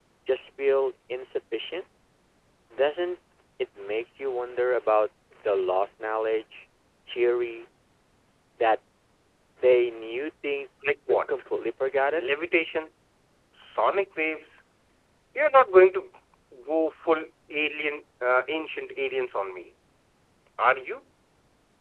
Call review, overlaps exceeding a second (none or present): none